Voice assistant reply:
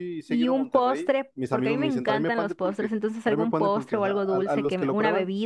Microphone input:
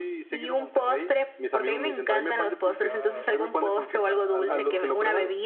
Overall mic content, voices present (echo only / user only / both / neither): both